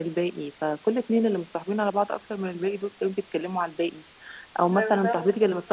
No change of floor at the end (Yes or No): Yes